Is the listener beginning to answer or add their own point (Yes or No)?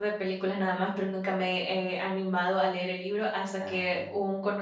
No